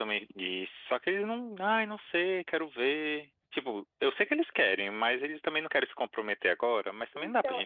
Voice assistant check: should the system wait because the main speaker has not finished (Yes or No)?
No